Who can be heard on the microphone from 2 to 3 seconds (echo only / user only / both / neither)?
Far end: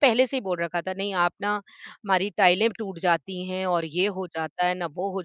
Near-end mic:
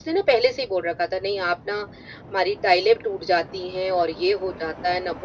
echo only